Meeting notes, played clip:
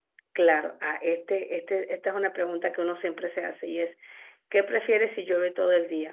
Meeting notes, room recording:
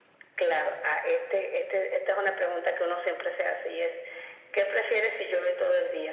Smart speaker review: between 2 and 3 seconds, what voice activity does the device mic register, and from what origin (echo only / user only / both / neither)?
echo only